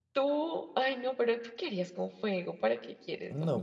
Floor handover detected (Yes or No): Yes